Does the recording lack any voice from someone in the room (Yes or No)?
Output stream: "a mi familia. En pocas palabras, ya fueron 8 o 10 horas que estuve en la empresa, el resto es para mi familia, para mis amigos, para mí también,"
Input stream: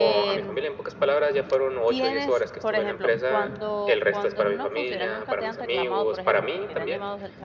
No